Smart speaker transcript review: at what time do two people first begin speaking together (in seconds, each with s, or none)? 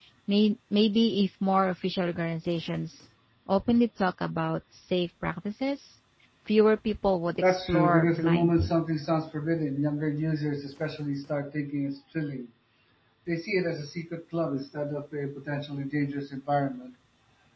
7.4 s